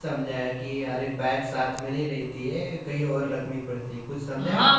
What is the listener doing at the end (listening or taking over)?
taking over